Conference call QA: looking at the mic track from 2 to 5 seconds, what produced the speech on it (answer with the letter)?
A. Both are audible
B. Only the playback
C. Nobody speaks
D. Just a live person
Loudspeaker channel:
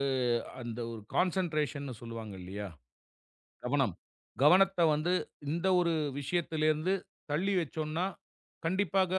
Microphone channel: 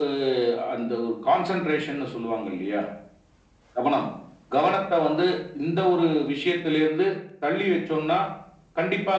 B